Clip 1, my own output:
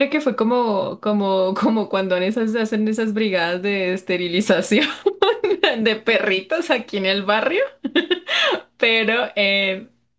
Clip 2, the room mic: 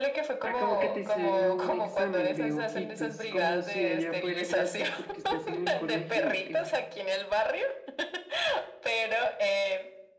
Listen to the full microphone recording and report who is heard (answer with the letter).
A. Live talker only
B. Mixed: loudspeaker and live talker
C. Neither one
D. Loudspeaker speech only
B